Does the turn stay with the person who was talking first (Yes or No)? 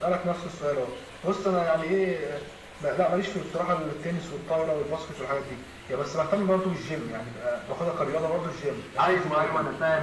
No